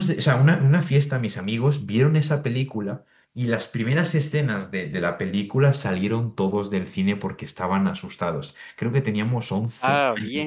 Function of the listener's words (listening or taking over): listening